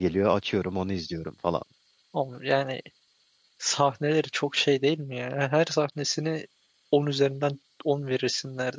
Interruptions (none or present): none